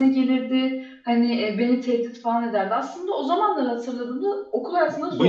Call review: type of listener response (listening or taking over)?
taking over